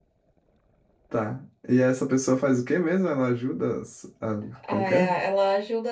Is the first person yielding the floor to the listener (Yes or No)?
Yes